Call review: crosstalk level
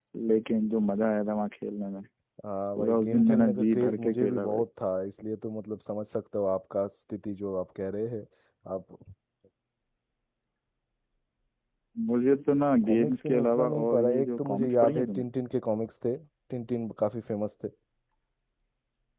present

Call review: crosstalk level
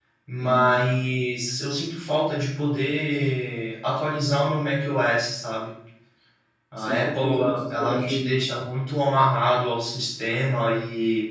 present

